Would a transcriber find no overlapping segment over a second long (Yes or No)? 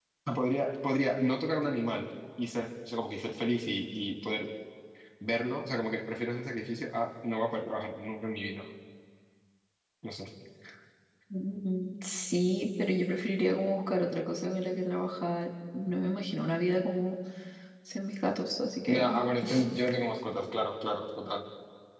Yes